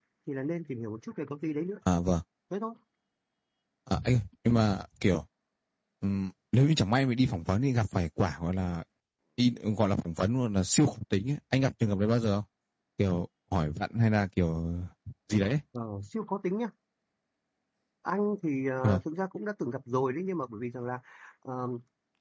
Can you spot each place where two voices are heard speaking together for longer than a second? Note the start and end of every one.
none

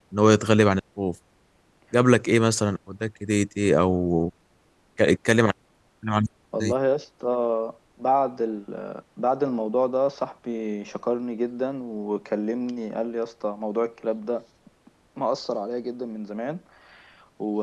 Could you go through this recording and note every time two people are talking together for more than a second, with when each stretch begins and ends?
none

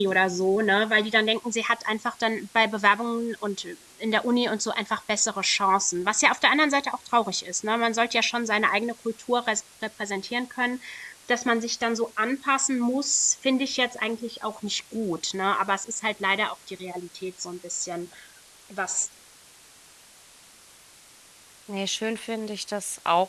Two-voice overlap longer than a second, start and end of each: none

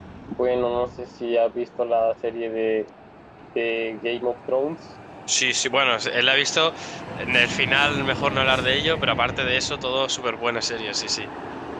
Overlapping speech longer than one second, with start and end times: none

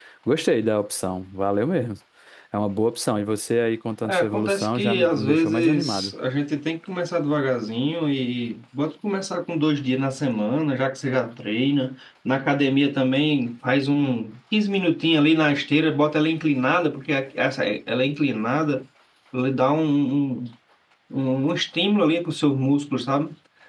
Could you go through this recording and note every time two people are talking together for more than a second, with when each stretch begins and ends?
4.0-6.1

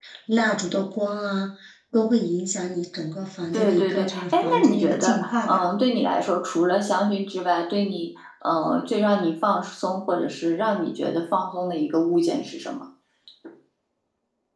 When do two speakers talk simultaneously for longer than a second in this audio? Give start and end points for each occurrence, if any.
3.5-5.6

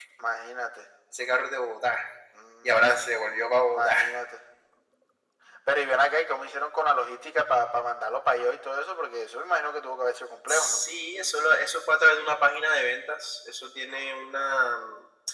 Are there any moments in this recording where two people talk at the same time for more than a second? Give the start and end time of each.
none

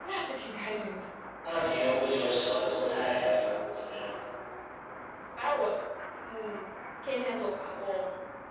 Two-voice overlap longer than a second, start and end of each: none

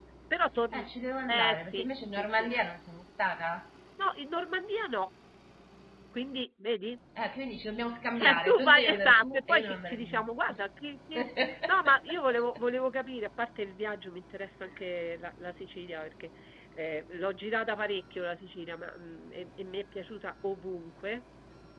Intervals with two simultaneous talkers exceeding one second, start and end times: 1.3-2.5, 8.1-10.2

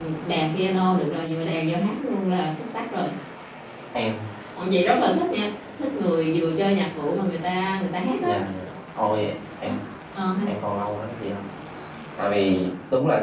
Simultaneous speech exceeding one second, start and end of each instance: none

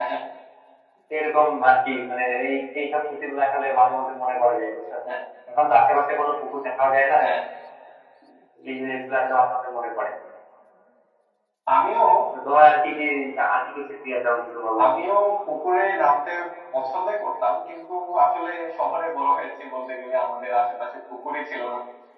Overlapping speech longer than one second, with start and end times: none

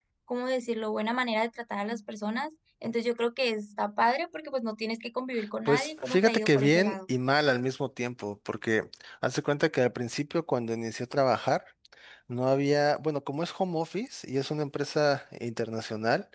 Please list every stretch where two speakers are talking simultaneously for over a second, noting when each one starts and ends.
5.7-7.0

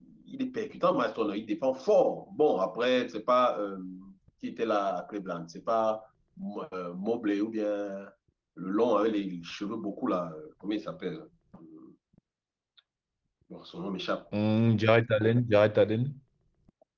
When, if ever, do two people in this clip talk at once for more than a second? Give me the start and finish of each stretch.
none

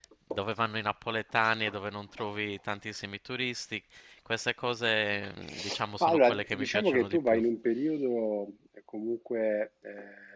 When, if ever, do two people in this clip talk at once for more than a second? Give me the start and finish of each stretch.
6.0-7.4

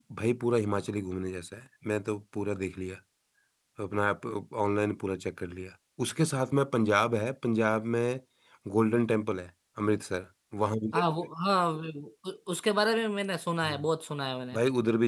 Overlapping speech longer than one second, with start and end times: none

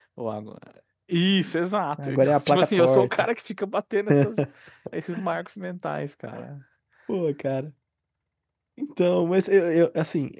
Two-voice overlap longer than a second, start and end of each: 2.0-3.2

